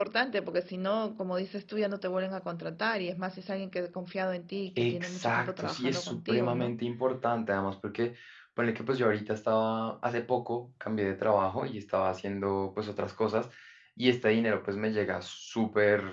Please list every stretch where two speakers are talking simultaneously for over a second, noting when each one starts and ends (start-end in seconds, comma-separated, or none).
4.8-6.8